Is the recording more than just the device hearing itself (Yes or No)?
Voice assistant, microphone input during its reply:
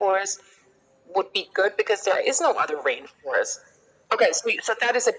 No